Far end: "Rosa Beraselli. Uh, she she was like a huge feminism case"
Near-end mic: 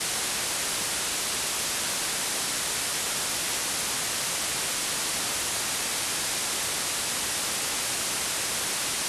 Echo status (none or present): none